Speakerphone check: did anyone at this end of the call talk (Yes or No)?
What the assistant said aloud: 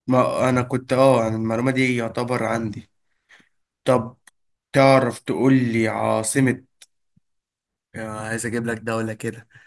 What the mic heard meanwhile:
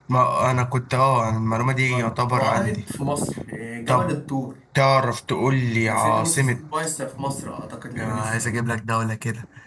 Yes